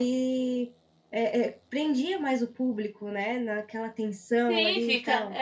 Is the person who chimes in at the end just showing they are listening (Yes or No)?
No